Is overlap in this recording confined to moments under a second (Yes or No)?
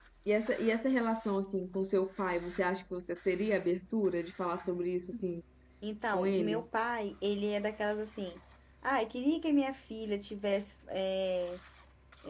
Yes